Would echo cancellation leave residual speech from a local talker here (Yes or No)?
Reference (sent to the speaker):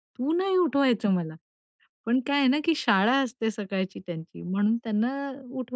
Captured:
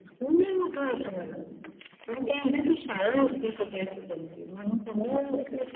No